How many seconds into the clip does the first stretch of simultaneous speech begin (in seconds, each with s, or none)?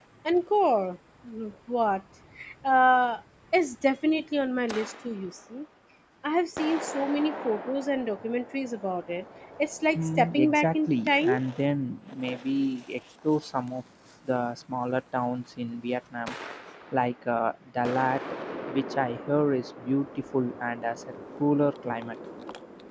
9.9 s